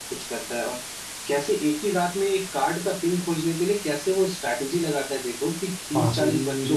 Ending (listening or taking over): listening